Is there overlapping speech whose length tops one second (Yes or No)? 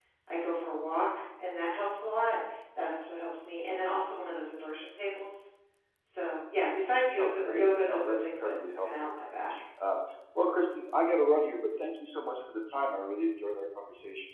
Yes